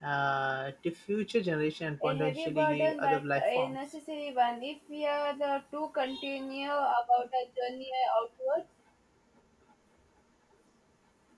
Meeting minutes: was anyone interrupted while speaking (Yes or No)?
Yes